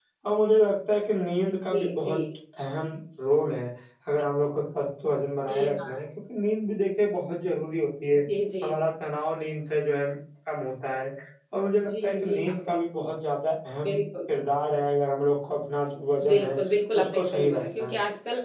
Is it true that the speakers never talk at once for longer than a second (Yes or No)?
No